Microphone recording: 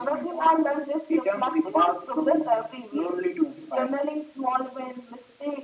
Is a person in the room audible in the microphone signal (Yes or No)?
No